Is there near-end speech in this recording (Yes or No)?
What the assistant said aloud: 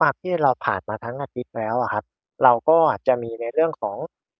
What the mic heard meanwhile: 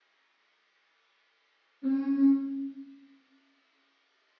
Yes